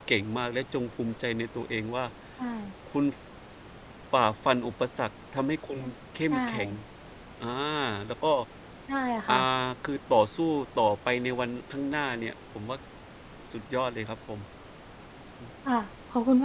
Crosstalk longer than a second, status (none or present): none